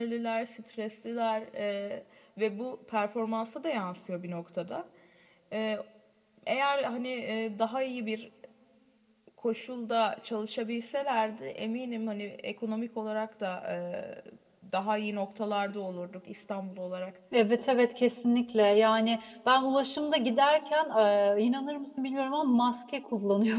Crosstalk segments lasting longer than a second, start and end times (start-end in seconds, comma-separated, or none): none